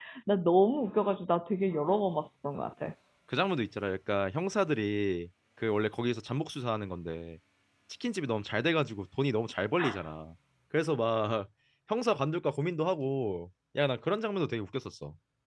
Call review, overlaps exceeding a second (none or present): none